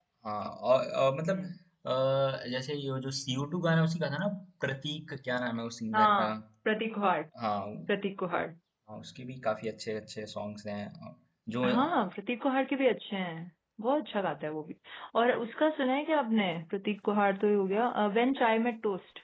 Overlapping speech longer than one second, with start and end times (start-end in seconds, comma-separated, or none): none